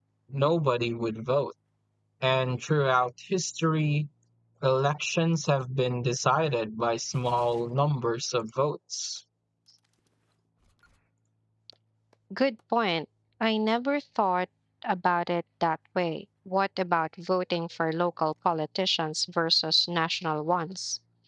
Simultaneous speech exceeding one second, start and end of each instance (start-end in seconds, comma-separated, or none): none